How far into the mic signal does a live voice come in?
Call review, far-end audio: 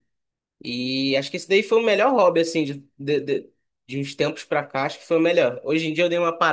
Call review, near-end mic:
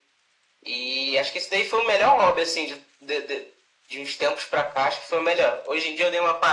none

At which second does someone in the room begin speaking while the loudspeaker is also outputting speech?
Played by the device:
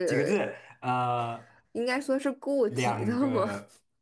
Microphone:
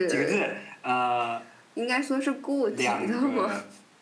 none

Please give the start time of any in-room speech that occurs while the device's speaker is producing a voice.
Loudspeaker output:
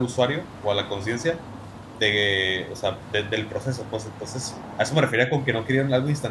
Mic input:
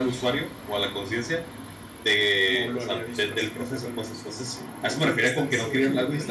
2 s

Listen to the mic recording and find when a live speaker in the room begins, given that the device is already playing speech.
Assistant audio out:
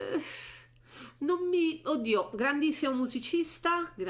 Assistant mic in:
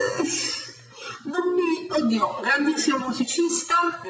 none

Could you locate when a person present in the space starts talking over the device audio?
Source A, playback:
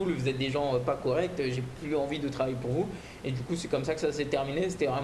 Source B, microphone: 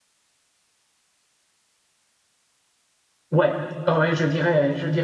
3 s

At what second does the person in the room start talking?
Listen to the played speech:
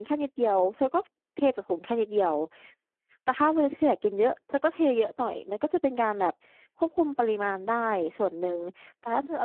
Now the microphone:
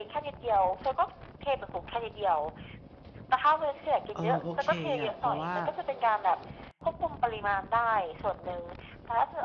4 s

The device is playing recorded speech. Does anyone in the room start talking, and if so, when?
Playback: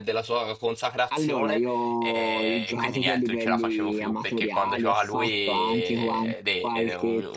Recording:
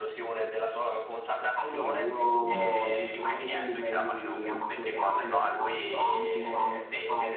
2 s

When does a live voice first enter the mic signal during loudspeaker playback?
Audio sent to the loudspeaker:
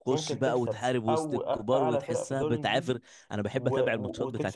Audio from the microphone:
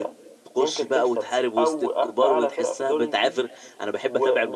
none

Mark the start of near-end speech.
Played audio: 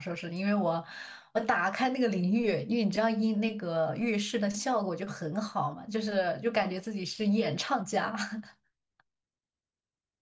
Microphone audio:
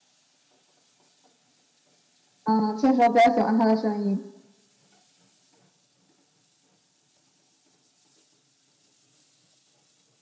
2 s

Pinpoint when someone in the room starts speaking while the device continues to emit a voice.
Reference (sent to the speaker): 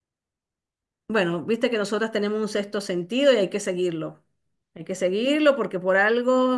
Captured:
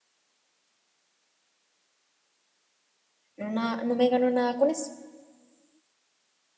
3 s

